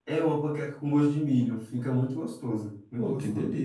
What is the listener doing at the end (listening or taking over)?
taking over